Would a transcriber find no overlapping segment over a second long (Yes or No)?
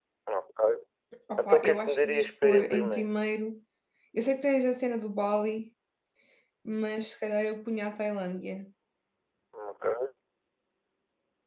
No